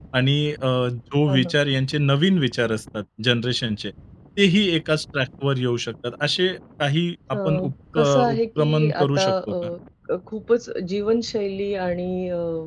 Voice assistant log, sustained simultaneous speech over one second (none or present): present